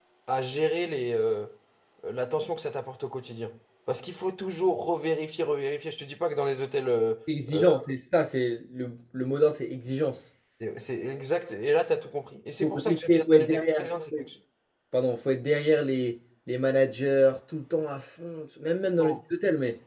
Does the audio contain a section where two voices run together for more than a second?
Yes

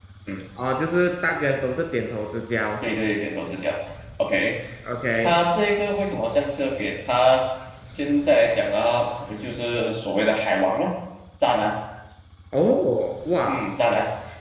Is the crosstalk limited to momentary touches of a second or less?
Yes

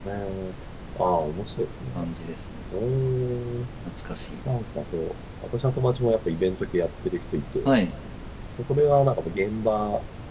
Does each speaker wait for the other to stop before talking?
Yes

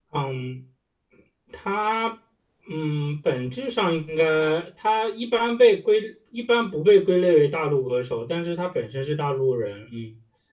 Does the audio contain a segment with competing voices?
No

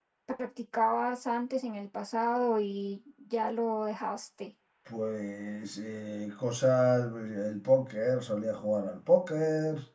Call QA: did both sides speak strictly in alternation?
Yes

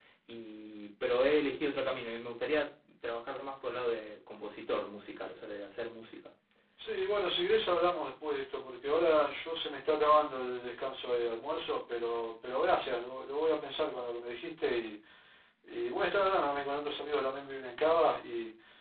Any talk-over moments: No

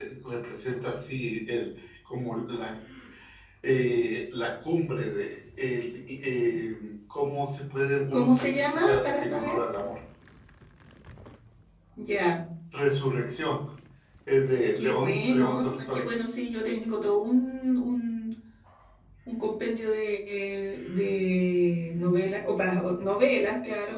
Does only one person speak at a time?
No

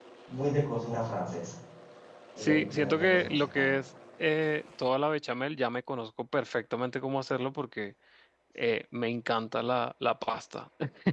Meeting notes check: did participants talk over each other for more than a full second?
Yes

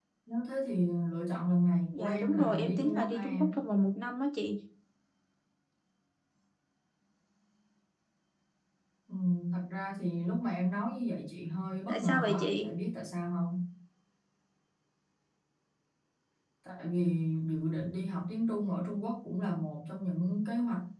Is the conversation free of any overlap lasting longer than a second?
No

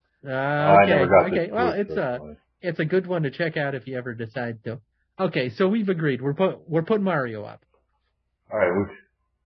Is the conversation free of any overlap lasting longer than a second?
No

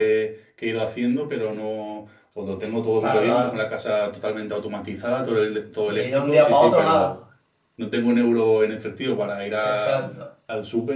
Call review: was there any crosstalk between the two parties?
Yes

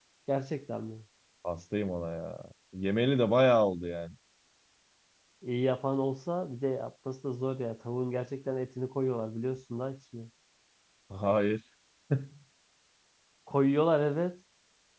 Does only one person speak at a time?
Yes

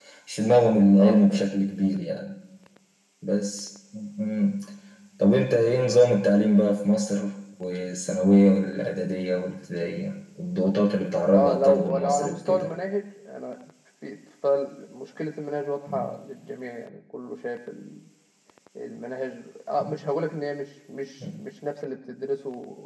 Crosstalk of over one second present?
Yes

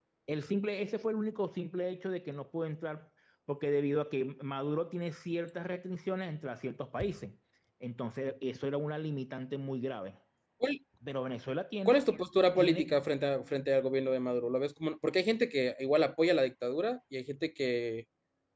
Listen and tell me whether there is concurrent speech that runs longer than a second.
No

